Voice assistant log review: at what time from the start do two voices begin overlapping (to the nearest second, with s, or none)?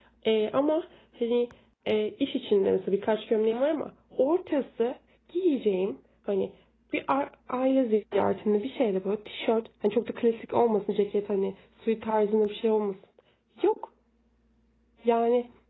none